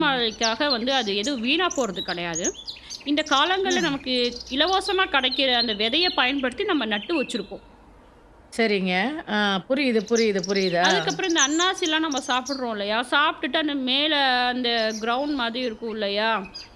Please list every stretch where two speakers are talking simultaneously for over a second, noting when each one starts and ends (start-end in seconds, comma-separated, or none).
none